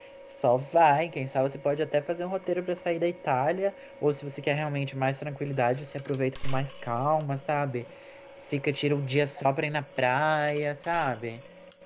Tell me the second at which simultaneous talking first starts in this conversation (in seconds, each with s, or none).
none